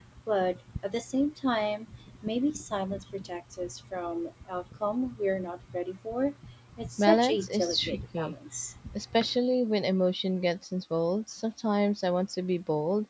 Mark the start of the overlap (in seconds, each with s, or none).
7.0 s